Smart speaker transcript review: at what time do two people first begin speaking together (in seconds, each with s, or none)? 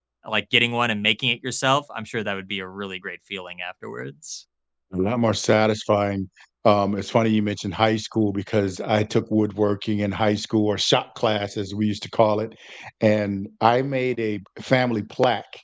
none